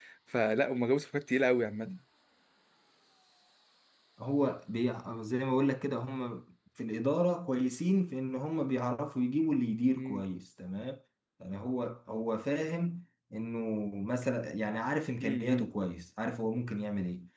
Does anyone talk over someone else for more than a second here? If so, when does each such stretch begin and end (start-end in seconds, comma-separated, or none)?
none